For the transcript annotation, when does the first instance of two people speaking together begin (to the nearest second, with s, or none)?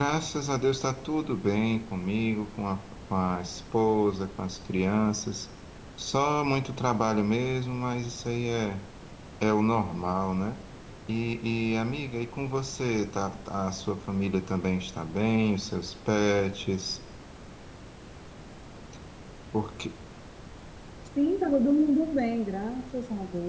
none